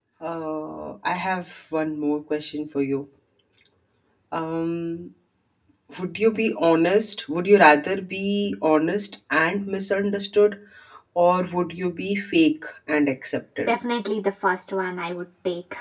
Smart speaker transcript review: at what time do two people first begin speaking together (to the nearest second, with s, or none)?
none